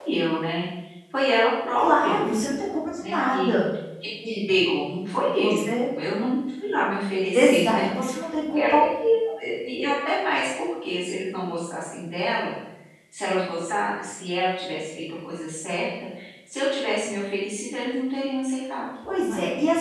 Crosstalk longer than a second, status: none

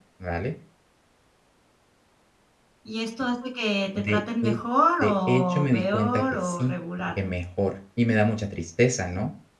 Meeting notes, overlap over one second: present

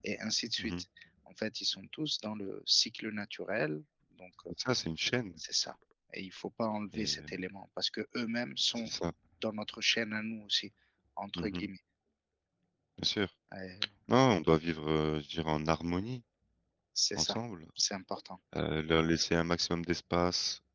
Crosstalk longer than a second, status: none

